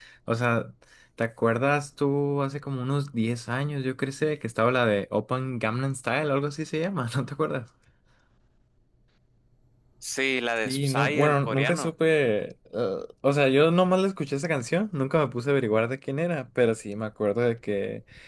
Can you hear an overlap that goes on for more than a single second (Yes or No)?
Yes